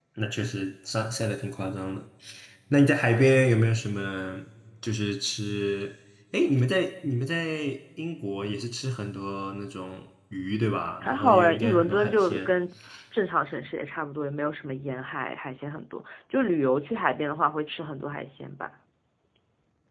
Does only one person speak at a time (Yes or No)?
No